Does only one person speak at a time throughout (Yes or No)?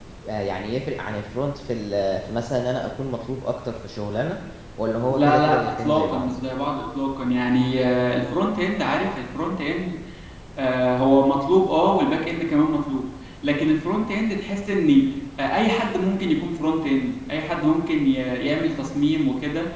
No